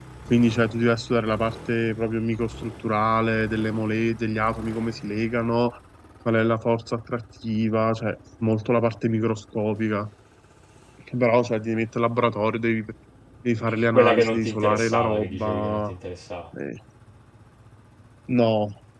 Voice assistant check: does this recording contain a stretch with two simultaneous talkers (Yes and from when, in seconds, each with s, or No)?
Yes, from 13.8 s